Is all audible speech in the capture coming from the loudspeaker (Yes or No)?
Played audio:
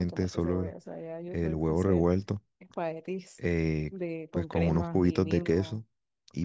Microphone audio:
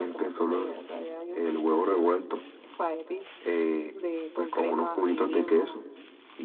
Yes